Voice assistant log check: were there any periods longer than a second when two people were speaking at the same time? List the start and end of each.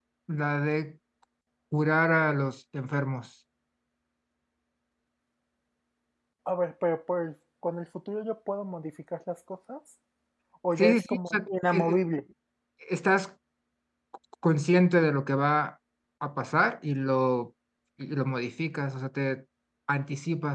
10.8-12.0

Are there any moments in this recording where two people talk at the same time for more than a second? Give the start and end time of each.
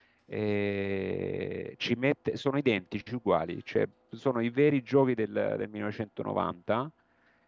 none

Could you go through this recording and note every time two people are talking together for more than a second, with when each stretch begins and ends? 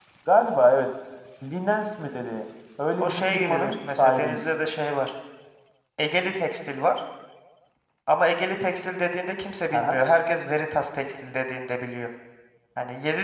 3.0-4.4

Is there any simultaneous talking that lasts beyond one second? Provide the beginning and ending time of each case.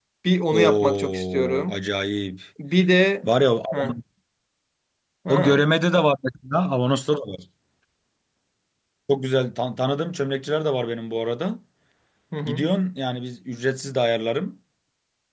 0.5-1.8

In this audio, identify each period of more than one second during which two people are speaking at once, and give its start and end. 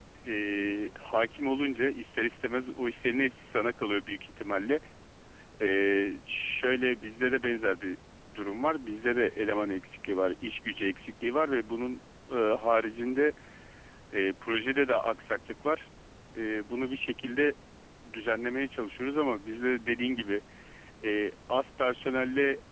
none

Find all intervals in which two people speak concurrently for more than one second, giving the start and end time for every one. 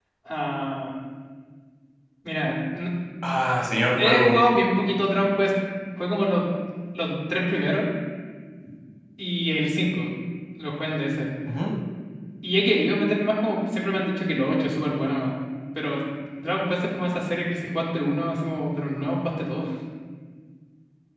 none

